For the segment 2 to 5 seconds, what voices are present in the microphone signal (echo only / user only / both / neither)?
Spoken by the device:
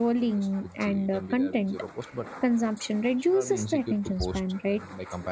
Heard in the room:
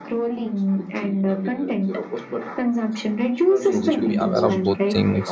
both